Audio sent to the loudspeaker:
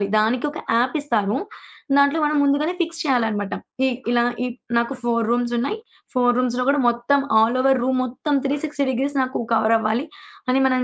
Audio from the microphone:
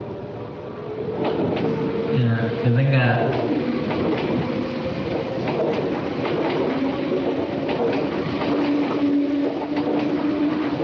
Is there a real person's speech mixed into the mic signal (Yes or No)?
Yes